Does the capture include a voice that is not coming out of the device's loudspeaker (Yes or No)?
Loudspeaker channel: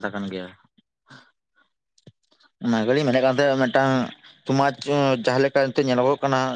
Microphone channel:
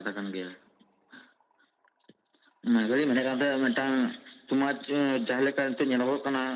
No